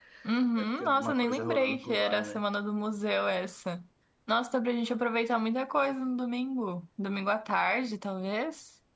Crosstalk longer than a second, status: present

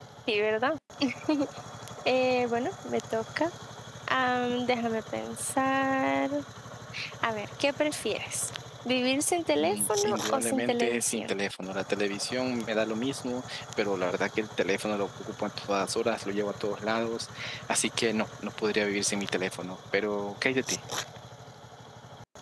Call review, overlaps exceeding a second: present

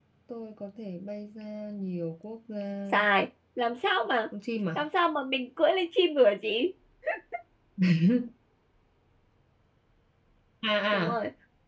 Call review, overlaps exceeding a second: none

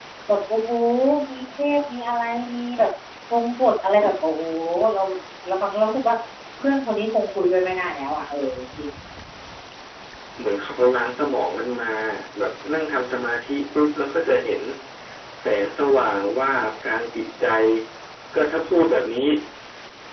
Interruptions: none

